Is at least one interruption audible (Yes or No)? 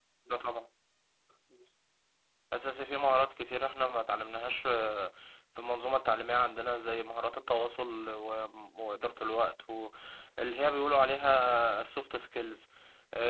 No